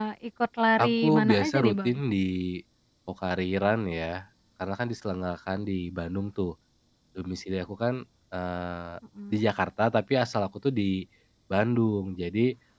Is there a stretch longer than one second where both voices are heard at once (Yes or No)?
Yes